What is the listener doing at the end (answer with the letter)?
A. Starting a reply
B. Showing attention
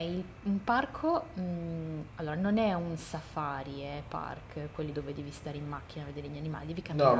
A